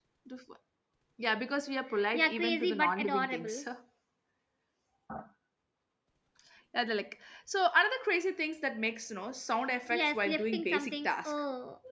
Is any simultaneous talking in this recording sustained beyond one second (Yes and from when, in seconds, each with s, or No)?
Yes, from 2.1 s